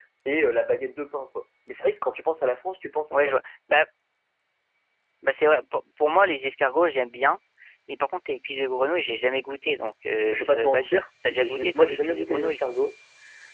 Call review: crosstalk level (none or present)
present